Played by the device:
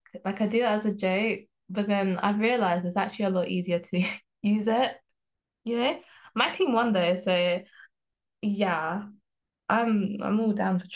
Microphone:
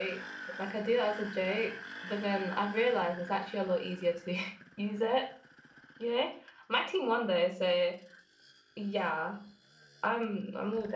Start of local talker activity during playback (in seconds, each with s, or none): none